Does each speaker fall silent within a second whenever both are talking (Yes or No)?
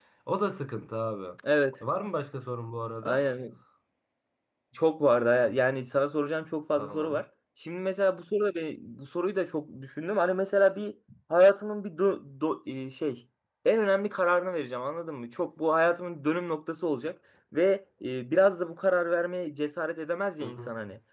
Yes